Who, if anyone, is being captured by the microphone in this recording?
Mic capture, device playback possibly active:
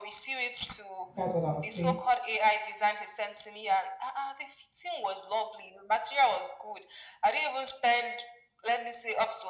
both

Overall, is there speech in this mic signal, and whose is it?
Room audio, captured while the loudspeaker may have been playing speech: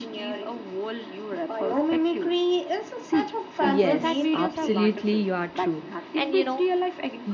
both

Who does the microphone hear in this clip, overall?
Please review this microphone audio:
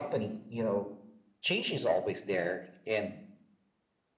echo only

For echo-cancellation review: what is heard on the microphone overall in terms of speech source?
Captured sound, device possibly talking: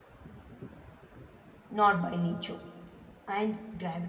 user only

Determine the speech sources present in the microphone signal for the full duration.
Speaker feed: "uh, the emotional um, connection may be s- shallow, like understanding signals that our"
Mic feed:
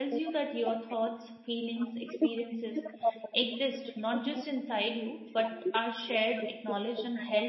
both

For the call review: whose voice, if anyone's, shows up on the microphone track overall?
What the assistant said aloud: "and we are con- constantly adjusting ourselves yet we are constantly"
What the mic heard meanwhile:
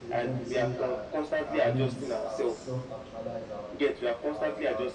both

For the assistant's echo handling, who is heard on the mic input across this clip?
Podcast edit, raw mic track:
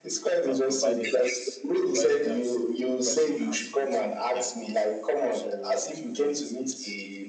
both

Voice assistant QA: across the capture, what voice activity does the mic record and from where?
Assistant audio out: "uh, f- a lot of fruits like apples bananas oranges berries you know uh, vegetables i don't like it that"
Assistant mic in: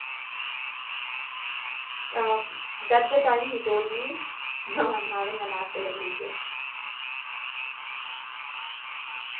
user only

